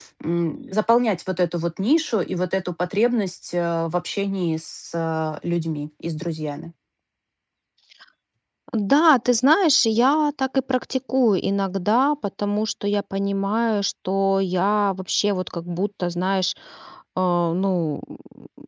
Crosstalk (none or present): none